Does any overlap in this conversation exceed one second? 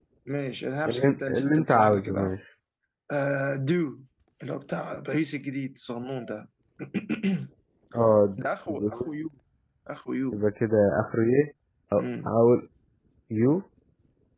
Yes, from 0.8 s

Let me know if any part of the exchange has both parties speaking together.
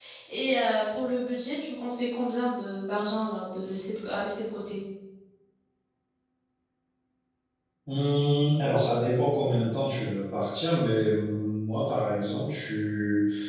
No

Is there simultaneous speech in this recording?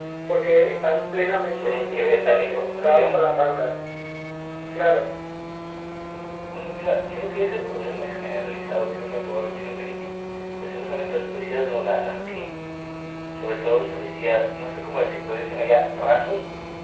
Yes, from 1.5 s

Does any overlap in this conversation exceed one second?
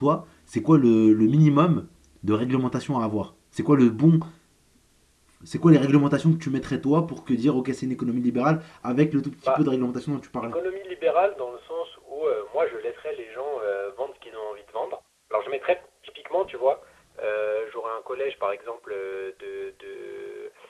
No

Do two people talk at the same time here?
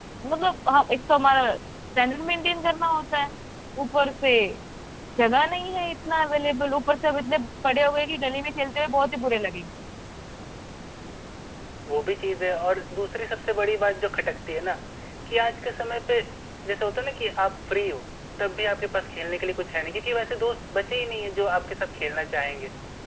No

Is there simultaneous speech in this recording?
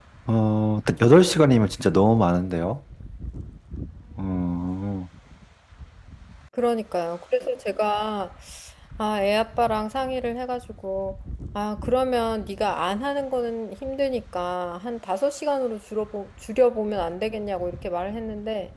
No

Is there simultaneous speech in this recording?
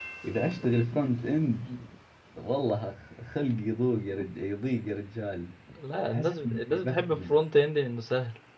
Yes, from 6.1 s

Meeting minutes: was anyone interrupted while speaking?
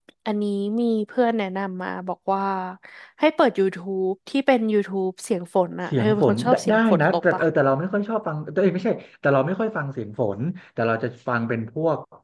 Yes, from 5.9 s

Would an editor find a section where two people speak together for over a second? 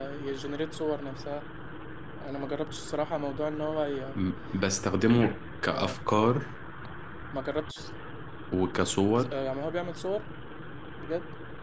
No

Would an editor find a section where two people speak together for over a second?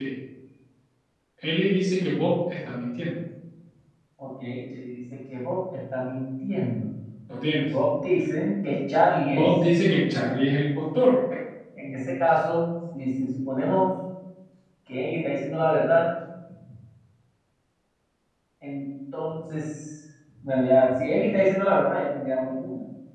No

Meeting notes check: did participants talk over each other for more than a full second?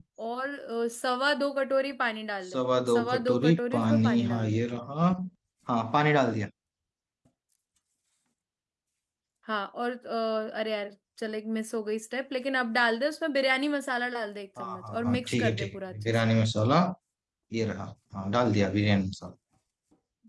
Yes, from 2.5 s

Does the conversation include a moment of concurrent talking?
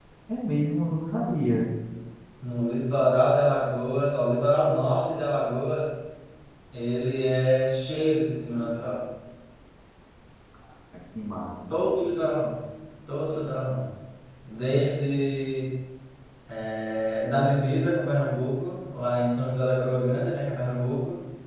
No

